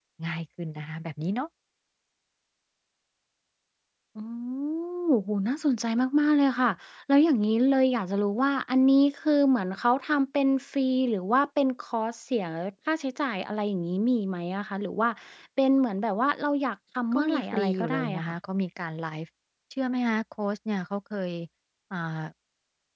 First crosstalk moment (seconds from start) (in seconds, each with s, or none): 17.1 s